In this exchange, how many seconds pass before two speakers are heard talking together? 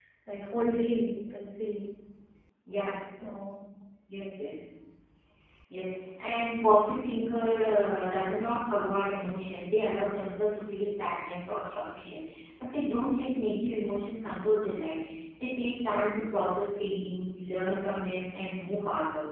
none

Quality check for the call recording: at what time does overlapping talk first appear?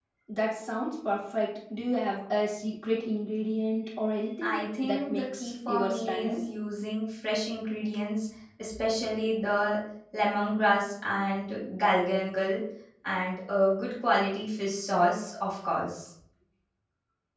4 s

